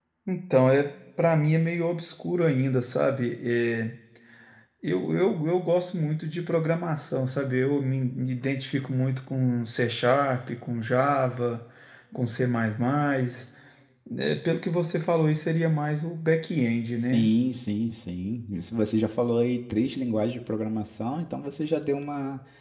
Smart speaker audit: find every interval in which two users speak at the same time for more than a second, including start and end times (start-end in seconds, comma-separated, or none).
none